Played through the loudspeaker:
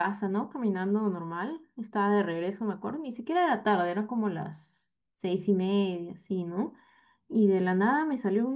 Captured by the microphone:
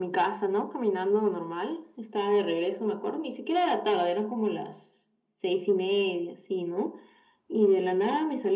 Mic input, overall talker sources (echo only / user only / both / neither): echo only